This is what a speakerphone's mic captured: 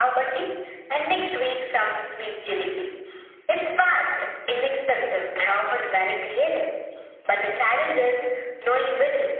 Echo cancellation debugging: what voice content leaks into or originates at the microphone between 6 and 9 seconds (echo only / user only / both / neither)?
echo only